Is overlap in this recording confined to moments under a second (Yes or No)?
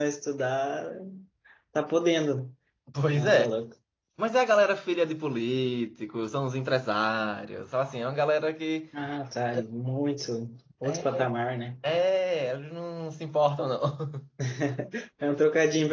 Yes